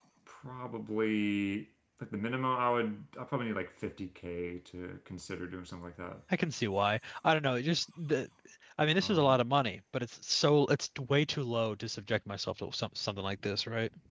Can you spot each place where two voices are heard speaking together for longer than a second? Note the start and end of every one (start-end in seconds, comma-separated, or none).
none